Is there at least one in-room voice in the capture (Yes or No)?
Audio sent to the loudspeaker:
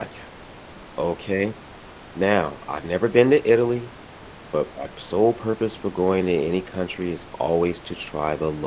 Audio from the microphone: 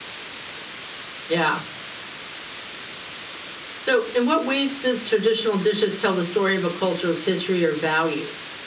Yes